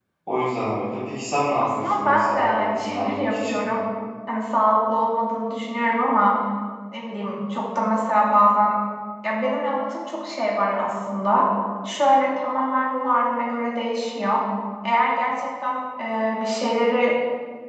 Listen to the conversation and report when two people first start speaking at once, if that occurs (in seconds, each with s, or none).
1.6 s